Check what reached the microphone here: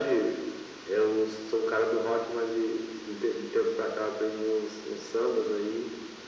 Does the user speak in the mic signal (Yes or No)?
No